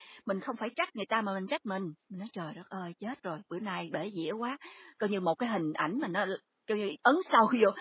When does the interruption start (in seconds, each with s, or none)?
none